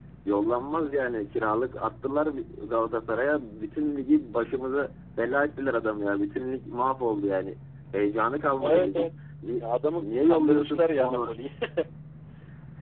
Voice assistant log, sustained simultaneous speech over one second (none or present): present